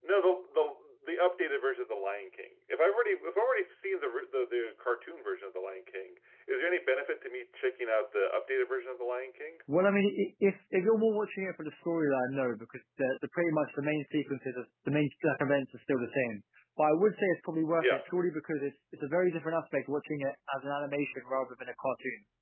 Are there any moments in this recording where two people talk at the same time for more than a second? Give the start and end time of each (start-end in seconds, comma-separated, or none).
none